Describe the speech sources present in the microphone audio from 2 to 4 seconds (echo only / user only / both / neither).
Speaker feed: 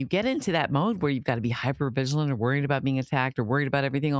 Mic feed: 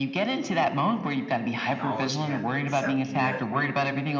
both